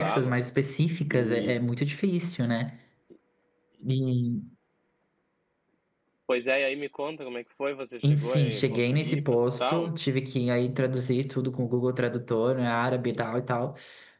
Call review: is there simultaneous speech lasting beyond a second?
Yes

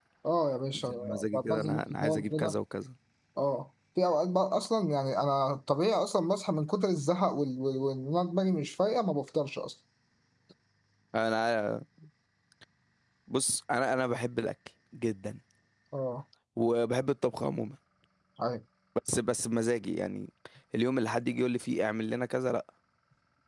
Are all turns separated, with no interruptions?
No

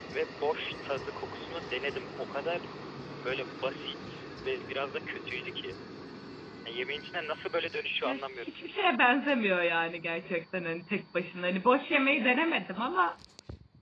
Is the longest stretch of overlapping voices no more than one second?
Yes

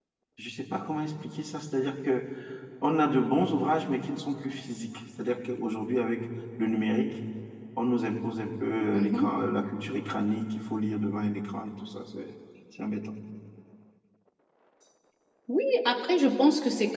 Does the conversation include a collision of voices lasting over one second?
No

